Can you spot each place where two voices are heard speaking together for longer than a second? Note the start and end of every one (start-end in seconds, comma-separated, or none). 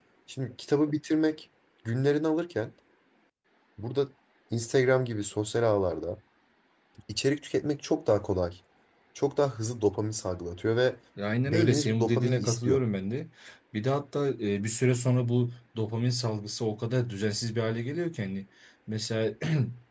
11.5-12.8